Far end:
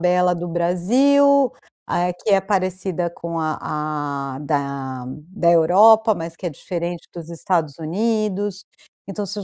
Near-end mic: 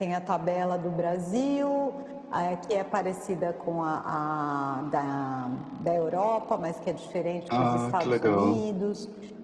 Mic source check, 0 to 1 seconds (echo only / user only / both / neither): echo only